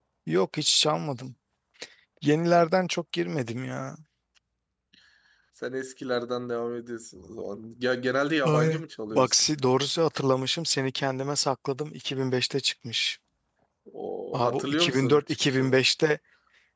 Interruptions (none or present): present